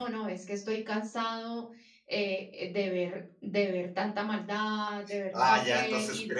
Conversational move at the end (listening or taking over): taking over